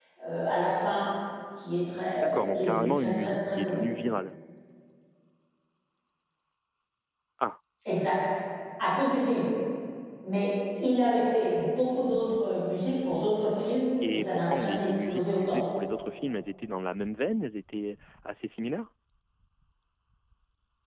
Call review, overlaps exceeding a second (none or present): present